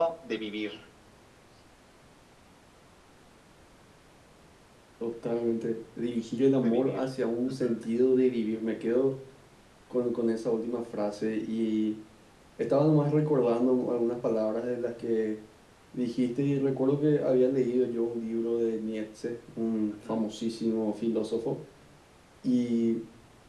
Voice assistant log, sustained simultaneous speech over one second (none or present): none